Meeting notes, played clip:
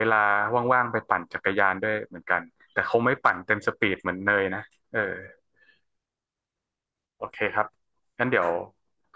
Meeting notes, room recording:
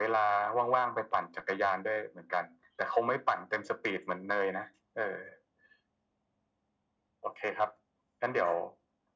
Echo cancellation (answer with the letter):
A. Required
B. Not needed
A